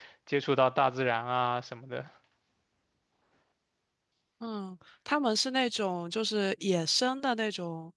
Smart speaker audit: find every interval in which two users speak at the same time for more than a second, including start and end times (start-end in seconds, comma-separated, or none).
none